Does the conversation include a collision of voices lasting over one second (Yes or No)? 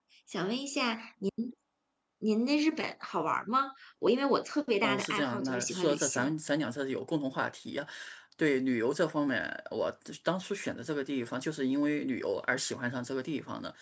Yes